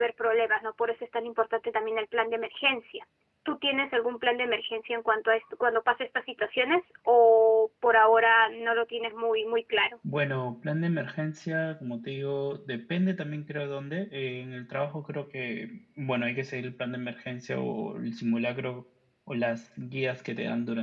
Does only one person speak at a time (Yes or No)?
Yes